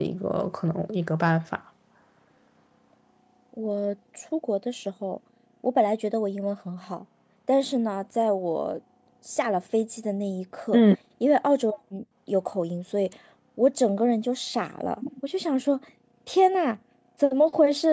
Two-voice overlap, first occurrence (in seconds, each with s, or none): none